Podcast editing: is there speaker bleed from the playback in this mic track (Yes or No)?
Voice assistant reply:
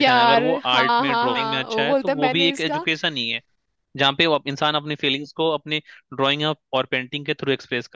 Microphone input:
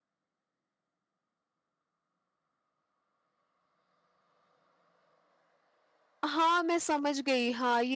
No